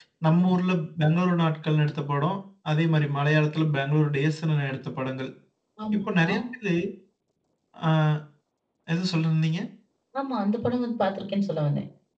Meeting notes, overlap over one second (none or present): none